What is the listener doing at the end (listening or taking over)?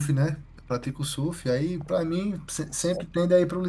listening